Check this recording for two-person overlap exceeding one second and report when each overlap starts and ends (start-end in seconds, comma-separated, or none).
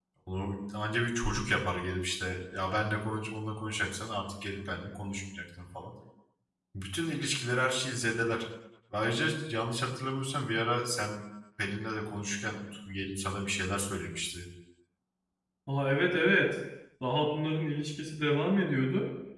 none